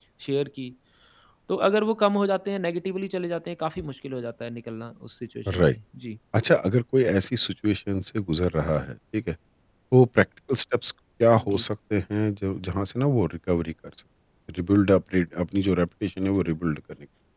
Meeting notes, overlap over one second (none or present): none